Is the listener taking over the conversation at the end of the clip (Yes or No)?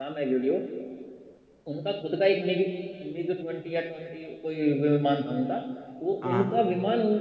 No